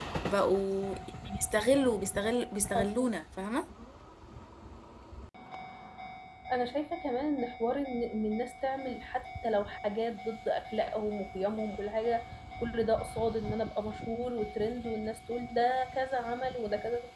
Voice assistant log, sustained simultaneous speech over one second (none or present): none